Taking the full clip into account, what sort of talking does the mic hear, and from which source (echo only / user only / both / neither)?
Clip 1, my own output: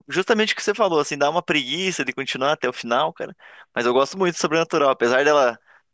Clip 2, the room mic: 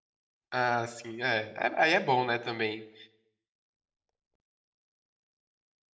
user only